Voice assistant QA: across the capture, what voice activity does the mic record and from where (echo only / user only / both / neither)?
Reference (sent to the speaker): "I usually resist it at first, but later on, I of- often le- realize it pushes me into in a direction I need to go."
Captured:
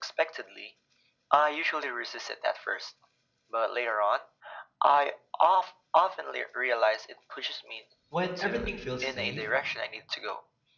both